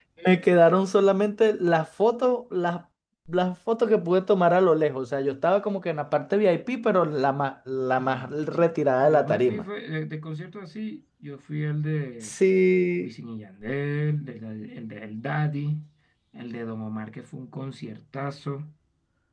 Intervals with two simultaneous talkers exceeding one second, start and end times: 8.0-9.6

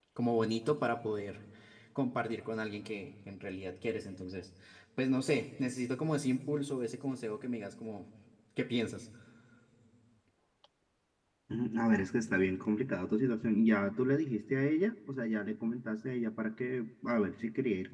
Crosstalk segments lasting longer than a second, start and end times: none

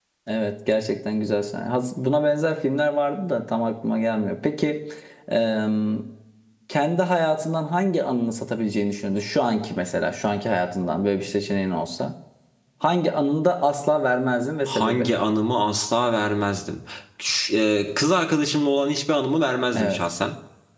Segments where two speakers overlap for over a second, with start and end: none

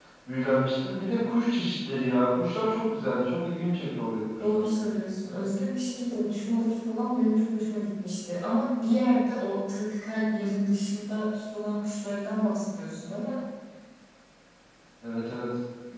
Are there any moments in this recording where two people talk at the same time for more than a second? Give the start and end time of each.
none

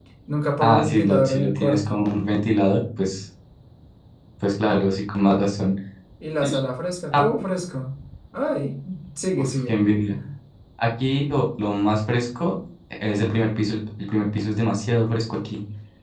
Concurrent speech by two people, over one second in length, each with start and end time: 0.6-2.0

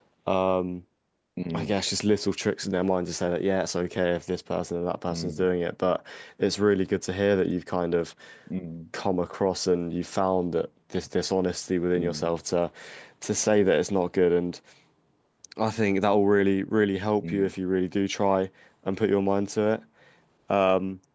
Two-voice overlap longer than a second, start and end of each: none

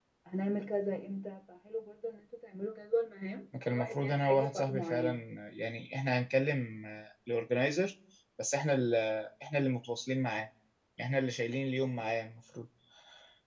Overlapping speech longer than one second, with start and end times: 3.7-5.1

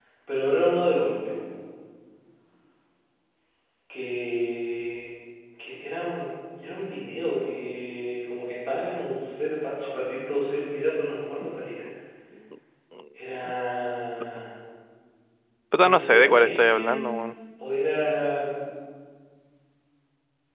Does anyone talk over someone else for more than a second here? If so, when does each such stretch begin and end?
15.8-17.3

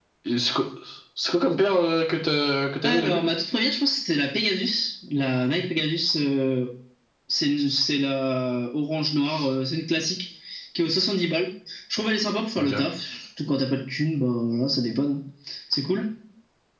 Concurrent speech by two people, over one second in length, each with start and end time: none

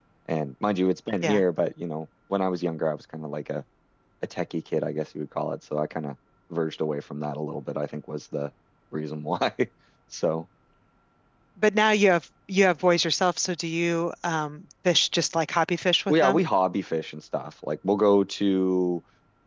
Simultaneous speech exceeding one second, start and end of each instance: none

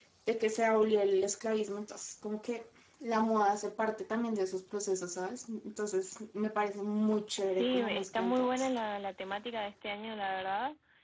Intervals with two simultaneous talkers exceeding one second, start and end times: 7.4-8.7

